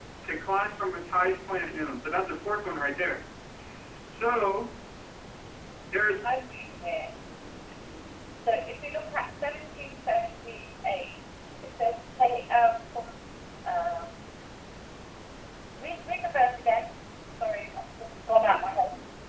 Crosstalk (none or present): none